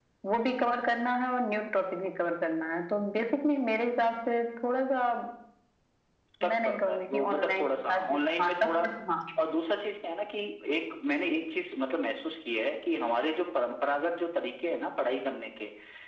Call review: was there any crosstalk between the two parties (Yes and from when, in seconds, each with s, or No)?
Yes, from 6.4 s